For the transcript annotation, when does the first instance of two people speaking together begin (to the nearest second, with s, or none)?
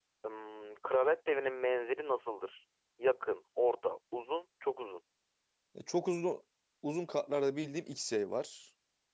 none